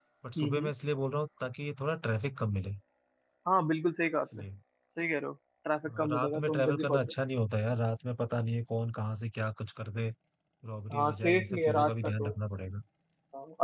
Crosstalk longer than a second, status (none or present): present